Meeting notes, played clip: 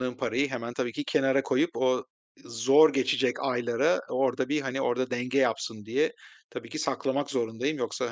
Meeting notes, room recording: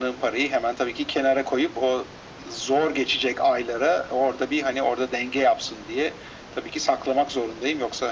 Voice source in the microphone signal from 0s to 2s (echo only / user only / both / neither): echo only